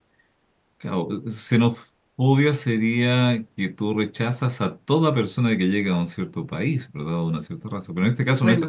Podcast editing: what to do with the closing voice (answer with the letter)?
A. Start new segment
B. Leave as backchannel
B